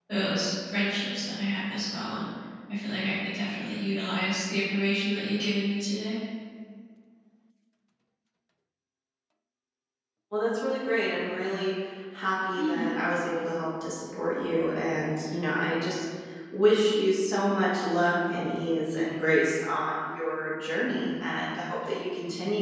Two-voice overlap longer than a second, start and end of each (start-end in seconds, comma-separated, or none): none